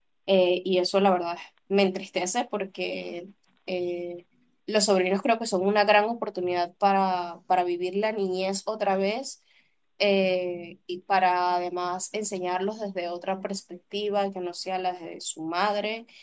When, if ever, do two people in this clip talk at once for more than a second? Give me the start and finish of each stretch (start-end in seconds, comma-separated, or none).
none